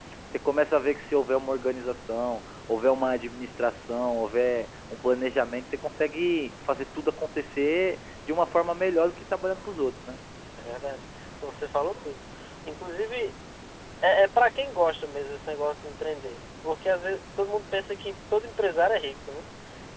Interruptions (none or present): none